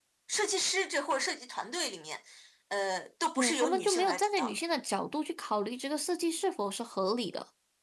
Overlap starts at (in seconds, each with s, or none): 3.4 s